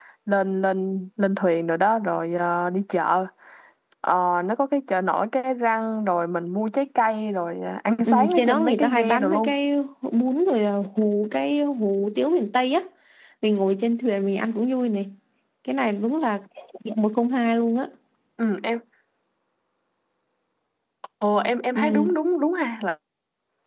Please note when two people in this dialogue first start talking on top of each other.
8.1 s

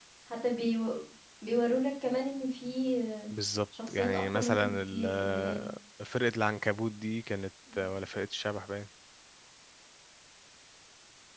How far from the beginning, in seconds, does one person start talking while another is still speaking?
3.9 s

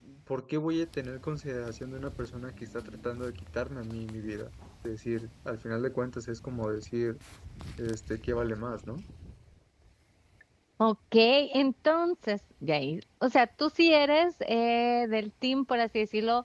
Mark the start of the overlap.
none

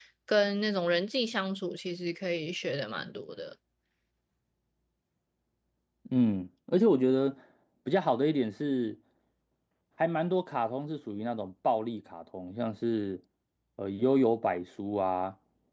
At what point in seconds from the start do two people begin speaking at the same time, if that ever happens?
none

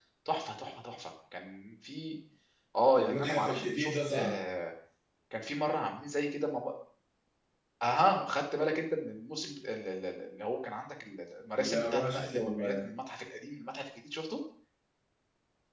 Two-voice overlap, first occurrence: 3.0 s

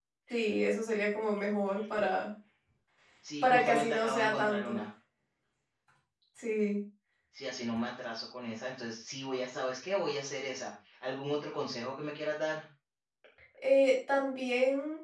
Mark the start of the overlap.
3.4 s

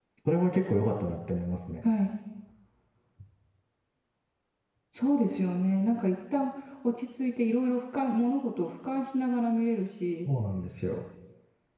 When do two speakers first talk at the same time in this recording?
none

